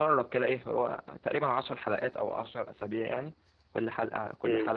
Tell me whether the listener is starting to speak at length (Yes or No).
No